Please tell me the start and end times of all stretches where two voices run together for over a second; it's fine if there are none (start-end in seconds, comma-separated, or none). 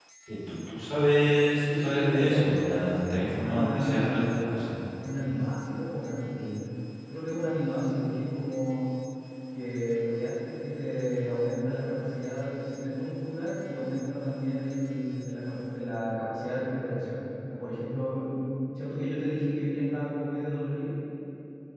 1.7-4.4